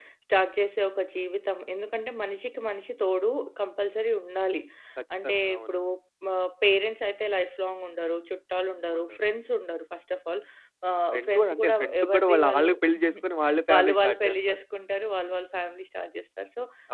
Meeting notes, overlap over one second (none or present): present